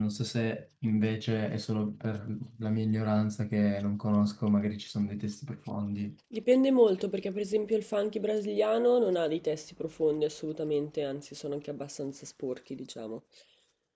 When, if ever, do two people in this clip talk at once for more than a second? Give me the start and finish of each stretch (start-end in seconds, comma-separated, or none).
none